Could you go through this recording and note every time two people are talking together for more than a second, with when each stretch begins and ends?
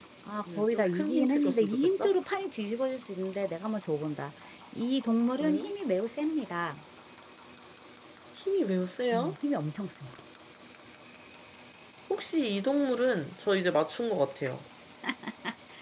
0.6-2.1

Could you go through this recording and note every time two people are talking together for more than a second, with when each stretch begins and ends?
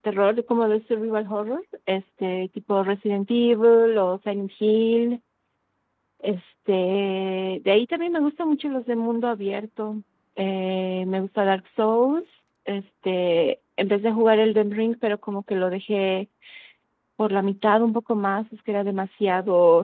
none

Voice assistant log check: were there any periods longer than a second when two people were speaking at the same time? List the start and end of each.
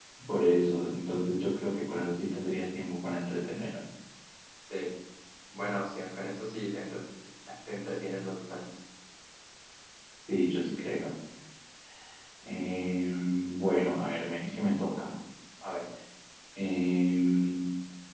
none

